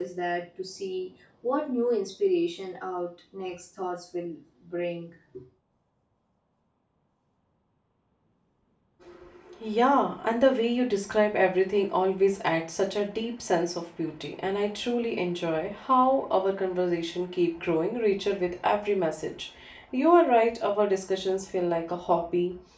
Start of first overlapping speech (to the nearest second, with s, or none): none